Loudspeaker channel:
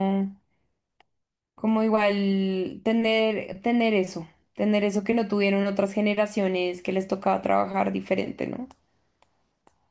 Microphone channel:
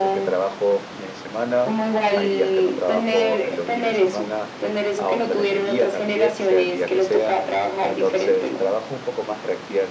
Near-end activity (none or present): present